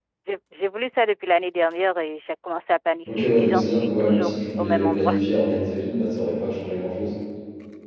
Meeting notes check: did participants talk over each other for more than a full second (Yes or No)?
Yes